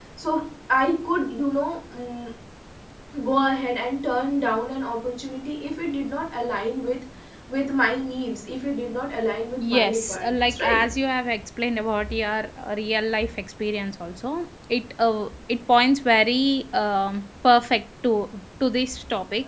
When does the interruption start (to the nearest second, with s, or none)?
10 s